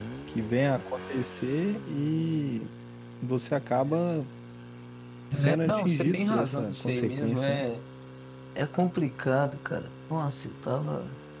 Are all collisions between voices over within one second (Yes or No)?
No